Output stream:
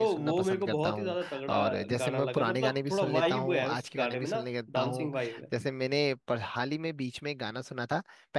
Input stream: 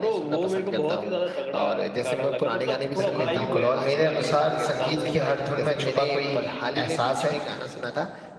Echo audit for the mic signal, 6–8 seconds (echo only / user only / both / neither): both